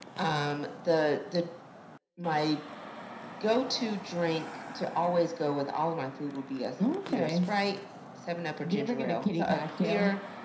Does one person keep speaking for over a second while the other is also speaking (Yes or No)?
Yes